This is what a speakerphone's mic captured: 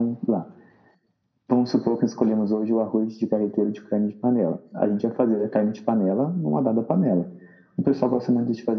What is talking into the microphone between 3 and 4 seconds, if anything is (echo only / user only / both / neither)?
echo only